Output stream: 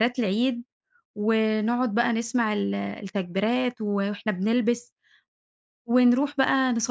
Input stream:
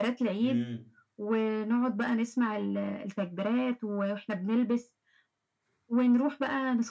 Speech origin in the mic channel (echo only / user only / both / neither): both